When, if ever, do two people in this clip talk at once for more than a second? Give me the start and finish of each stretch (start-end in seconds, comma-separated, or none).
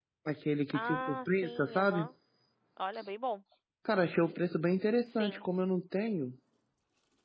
0.7-2.0